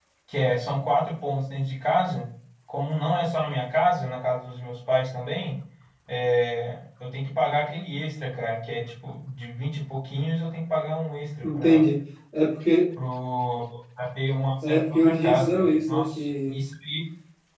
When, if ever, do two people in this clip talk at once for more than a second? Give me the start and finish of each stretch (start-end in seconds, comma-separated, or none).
14.6-16.5